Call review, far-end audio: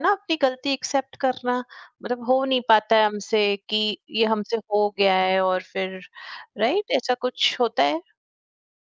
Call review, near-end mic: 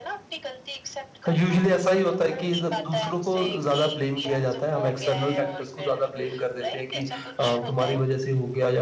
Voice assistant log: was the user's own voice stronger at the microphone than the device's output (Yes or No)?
Yes